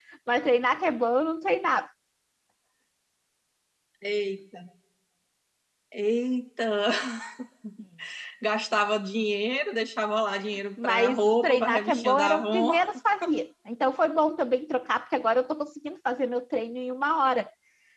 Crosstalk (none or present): present